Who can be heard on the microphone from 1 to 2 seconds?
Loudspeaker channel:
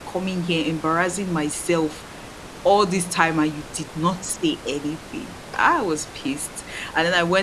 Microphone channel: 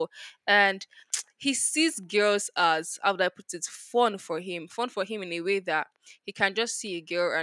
user only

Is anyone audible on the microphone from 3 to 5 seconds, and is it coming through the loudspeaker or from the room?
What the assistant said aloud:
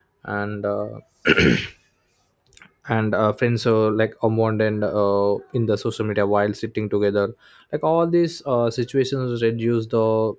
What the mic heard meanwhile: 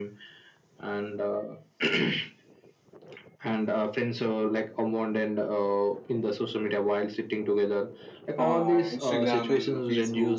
echo only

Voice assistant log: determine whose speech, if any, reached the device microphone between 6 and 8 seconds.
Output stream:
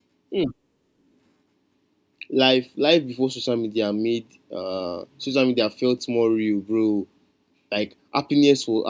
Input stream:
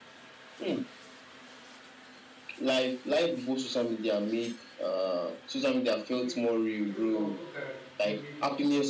both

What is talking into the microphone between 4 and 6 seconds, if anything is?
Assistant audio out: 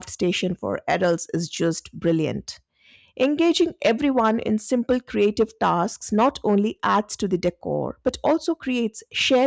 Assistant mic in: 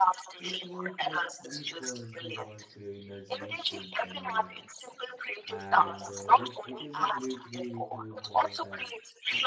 both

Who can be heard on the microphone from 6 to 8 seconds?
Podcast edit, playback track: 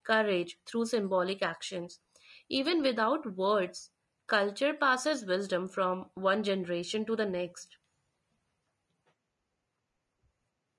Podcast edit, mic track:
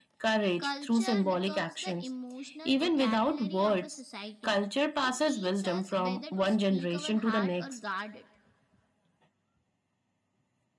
both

